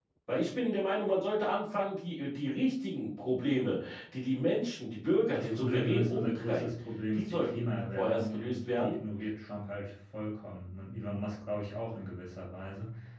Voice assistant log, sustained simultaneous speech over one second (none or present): present